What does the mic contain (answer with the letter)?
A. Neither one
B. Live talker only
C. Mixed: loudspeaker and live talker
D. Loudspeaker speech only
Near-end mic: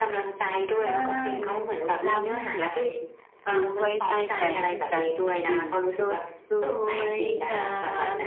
C